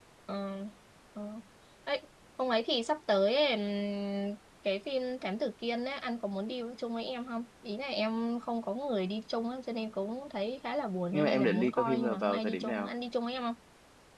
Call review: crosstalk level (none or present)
present